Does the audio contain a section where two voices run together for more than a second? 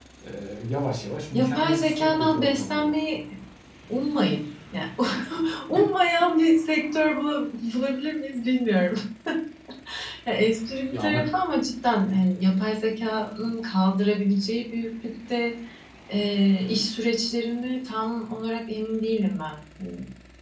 Yes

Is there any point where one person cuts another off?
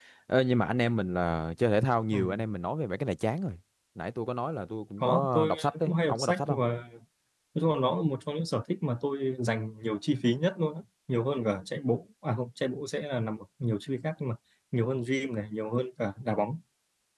Yes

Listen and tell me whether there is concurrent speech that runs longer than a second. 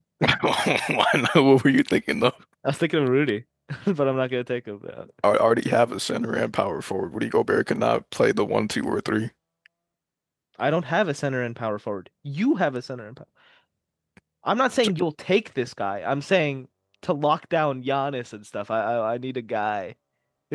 No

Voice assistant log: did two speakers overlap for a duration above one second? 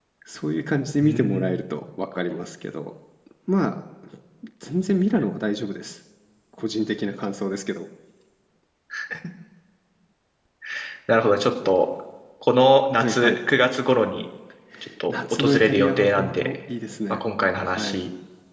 Yes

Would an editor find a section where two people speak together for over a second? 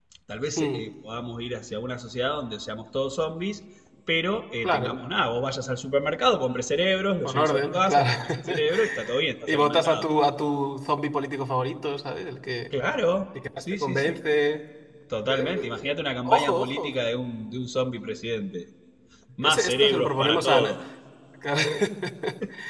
Yes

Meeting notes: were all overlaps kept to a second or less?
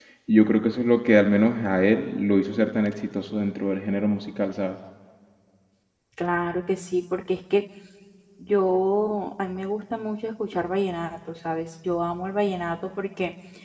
Yes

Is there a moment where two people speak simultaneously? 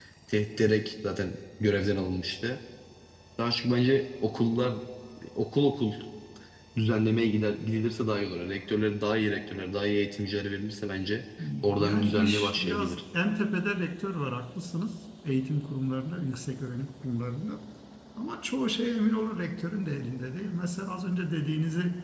Yes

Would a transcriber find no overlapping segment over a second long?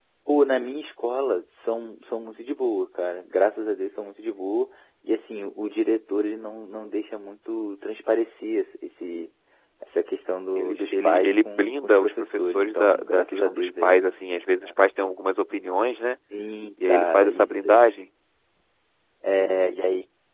No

